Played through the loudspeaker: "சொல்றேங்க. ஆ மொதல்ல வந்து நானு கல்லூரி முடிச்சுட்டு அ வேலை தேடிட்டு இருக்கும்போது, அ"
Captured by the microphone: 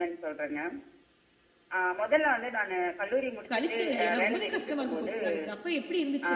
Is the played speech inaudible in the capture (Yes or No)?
No